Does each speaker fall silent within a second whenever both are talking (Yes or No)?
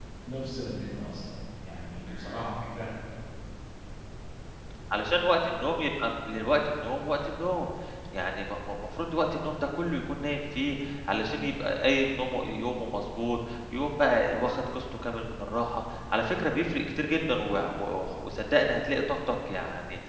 Yes